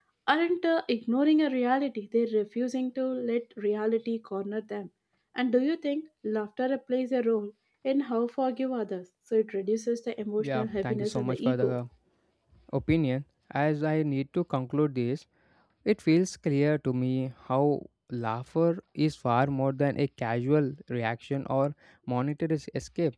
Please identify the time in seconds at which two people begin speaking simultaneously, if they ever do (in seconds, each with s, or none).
10.4 s